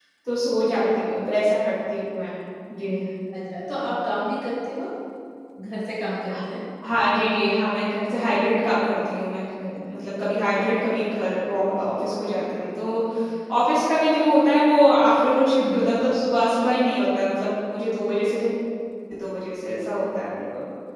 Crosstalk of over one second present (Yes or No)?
No